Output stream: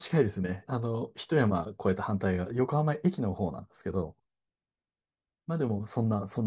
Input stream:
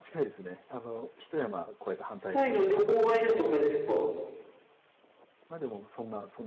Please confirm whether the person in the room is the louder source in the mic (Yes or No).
Yes